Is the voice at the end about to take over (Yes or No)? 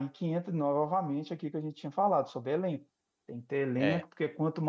No